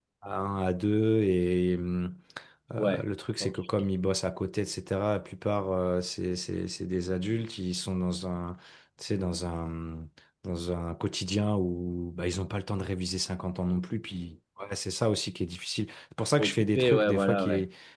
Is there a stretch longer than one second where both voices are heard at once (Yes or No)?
Yes